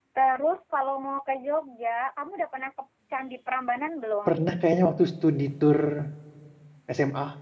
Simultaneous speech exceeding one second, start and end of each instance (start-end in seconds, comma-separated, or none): none